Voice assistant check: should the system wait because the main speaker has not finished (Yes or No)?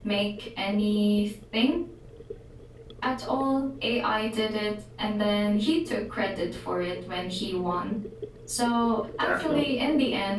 Yes